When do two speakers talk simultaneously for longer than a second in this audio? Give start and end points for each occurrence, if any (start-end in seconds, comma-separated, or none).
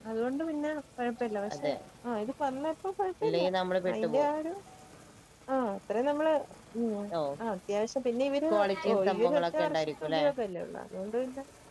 8.9-10.2